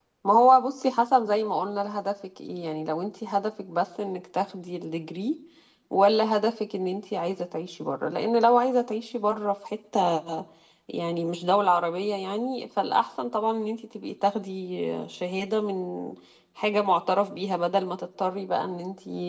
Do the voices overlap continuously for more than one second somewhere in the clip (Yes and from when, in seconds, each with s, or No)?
No